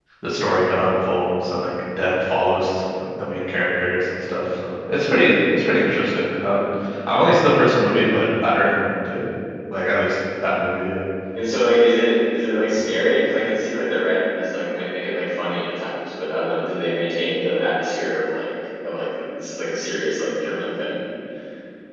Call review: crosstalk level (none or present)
none